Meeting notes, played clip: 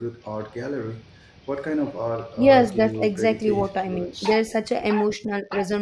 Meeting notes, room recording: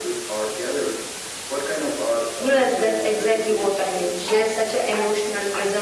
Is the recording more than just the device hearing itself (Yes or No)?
No